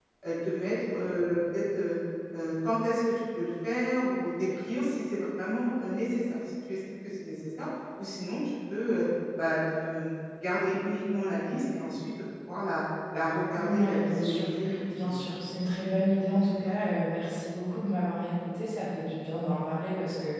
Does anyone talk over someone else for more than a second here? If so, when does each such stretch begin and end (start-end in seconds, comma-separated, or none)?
13.6-15.1